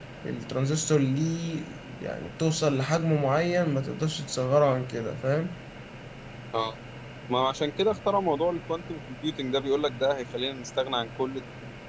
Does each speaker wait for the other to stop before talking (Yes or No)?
Yes